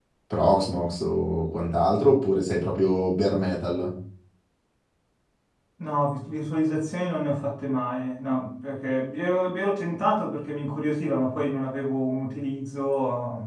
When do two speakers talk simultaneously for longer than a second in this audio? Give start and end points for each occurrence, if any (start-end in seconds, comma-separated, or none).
none